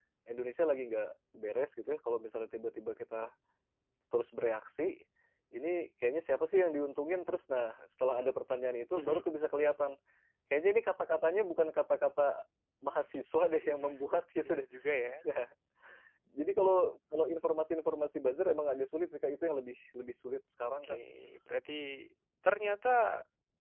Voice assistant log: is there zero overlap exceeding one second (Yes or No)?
Yes